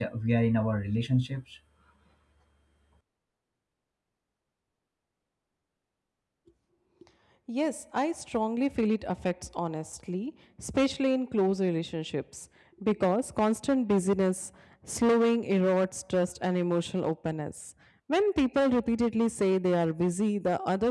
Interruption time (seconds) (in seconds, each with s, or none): none